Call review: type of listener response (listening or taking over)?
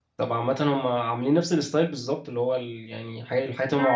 listening